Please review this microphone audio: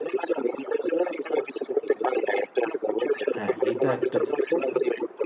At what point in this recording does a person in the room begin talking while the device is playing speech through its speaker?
3.3 s

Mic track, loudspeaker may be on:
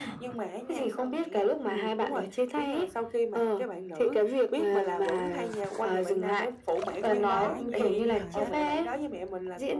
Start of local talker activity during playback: 7.1 s

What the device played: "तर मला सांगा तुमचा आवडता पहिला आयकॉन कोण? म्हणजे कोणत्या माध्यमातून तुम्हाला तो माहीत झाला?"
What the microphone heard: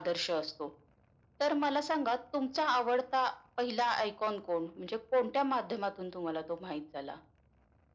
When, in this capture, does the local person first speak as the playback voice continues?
none

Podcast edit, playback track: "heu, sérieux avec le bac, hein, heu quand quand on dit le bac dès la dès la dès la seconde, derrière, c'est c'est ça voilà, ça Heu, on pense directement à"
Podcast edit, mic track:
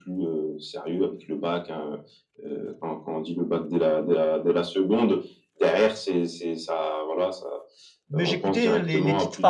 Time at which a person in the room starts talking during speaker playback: 8.1 s

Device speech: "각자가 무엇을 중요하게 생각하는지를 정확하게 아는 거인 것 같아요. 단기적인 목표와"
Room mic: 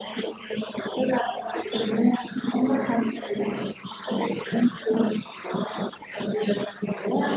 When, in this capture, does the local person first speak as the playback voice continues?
none

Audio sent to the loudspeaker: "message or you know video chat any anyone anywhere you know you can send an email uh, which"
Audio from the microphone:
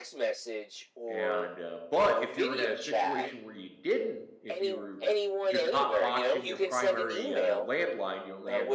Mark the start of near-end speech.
1.1 s

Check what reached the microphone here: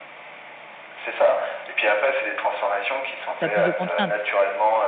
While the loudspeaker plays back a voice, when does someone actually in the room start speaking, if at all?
3.4 s

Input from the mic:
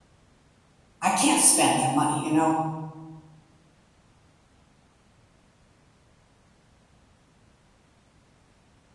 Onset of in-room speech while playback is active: 1.0 s

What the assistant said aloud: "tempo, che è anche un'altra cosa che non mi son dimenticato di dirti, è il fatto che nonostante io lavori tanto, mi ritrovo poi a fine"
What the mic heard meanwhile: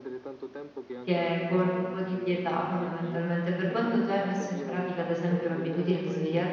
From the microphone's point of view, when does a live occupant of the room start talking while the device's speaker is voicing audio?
1.0 s

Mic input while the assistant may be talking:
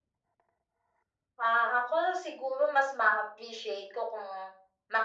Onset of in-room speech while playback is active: none

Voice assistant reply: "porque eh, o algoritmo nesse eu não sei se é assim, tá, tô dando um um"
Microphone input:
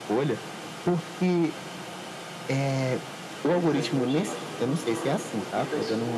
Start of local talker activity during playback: 3.4 s

